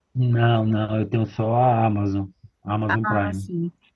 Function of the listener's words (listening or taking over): taking over